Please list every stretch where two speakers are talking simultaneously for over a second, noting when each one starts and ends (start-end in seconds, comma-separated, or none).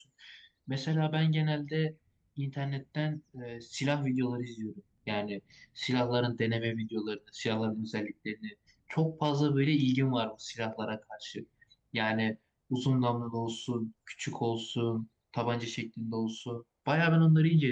none